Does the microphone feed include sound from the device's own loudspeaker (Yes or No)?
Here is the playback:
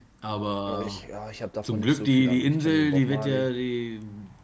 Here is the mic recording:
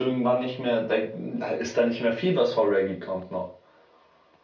No